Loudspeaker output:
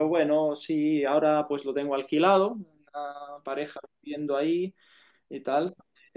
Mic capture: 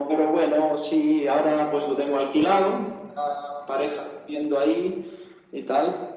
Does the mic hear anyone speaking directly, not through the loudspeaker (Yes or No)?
No